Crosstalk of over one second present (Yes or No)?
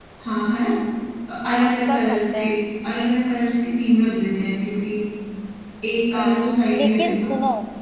Yes